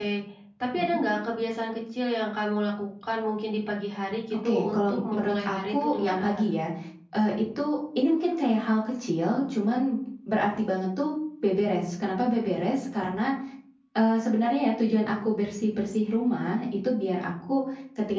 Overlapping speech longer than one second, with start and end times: 4.5-6.5

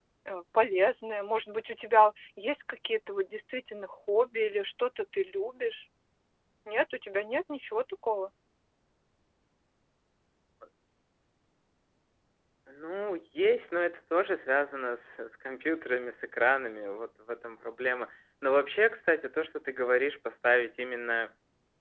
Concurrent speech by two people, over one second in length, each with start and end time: none

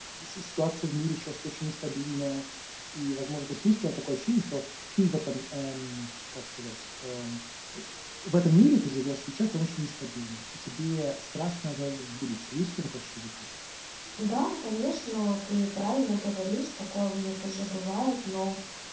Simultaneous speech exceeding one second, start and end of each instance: none

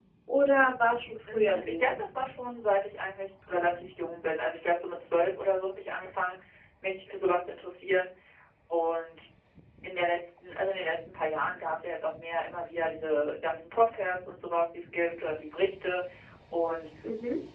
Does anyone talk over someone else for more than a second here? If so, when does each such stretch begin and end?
none

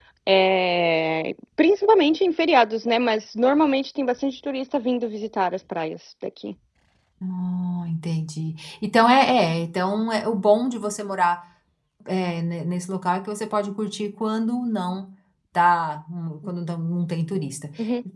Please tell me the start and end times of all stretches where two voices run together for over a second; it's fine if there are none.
none

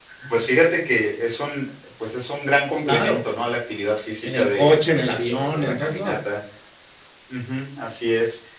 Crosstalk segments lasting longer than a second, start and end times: 4.2-6.2

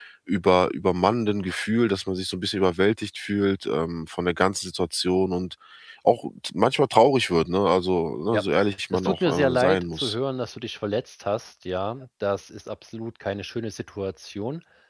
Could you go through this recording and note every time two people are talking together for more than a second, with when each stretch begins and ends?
8.9-10.2

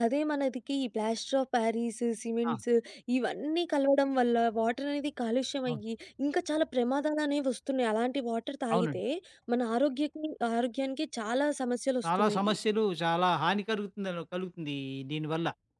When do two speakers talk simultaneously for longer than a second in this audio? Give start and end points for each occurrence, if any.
none

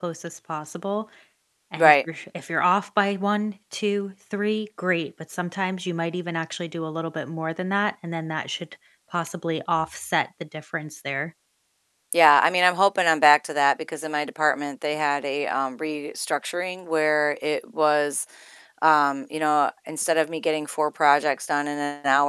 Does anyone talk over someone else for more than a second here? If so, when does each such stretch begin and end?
none

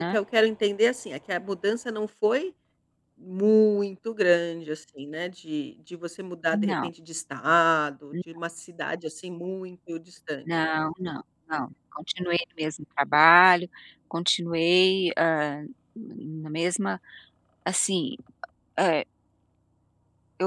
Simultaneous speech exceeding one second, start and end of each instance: none

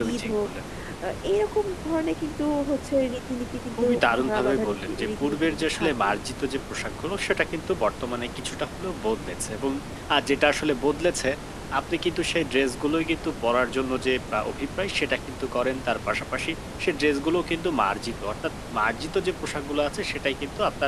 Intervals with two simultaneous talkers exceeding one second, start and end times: 3.8-6.2

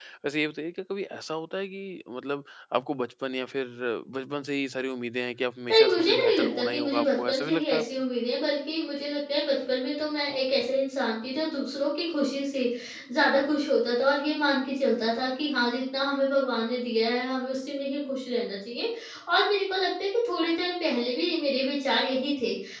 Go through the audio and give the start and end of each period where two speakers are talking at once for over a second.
5.7-7.8

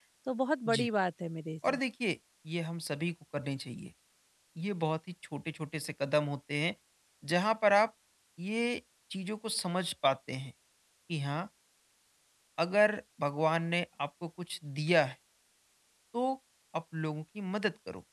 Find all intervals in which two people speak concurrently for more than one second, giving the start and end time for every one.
none

